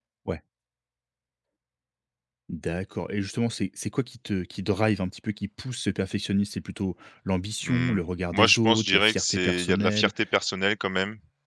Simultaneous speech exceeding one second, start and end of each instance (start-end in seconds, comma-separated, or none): 7.6-10.1